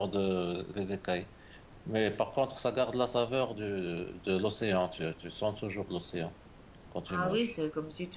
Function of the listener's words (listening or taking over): taking over